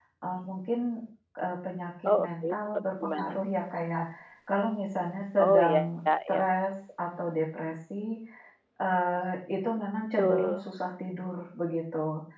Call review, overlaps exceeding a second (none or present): present